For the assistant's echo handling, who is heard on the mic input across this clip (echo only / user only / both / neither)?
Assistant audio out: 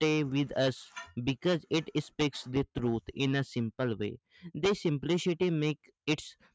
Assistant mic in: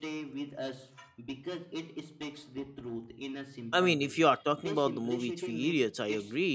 both